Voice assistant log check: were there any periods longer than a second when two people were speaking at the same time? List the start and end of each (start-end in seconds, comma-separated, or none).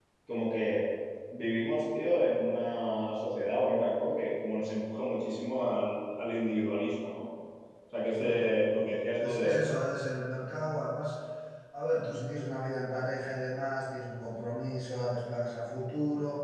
8.1-9.6